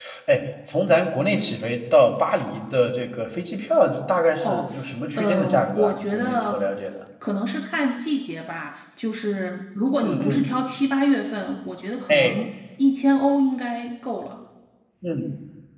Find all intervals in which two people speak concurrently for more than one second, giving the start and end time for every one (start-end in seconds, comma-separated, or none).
5.2-6.7